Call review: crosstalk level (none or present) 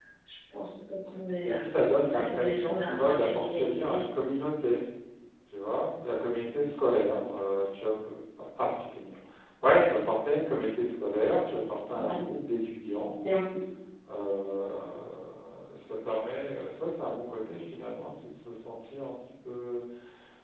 present